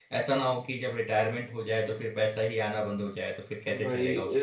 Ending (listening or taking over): taking over